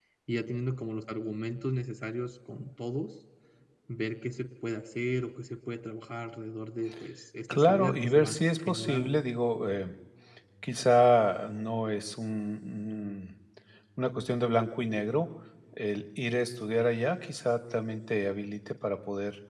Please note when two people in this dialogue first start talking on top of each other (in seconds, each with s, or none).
7.5 s